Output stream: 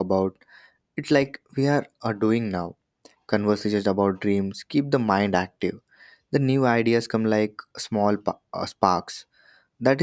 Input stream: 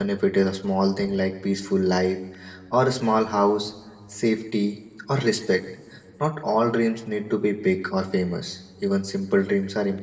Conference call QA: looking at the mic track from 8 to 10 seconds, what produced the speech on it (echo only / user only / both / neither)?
user only